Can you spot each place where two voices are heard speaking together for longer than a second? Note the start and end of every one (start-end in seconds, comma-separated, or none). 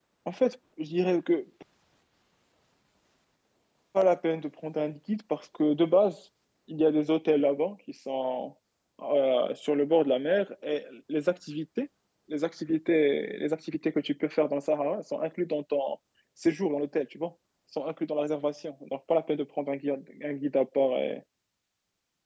none